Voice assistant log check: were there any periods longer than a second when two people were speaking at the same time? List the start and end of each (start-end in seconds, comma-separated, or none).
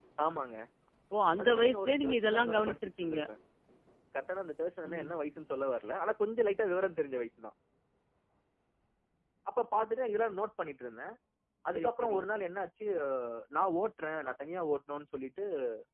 1.4-3.2